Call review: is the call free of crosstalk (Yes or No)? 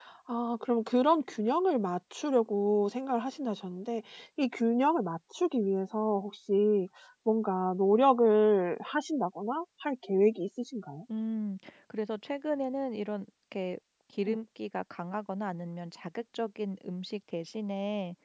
Yes